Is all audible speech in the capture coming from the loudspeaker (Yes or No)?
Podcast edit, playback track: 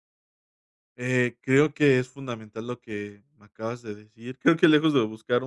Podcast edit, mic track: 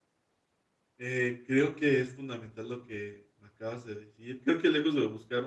Yes